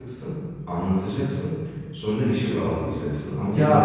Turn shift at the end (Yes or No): No